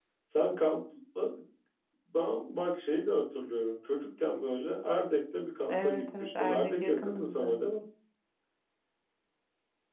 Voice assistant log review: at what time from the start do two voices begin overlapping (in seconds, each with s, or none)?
5.6 s